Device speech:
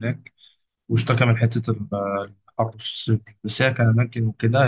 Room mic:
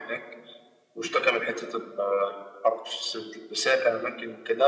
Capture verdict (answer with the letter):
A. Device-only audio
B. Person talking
A